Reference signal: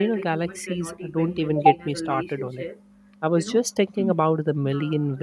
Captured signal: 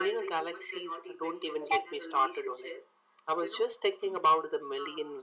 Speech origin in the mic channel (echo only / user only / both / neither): echo only